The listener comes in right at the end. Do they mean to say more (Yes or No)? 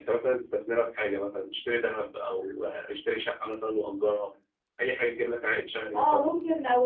Yes